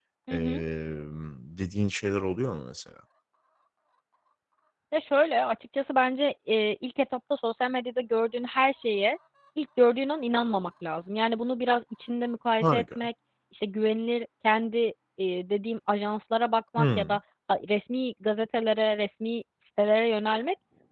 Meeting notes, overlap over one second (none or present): none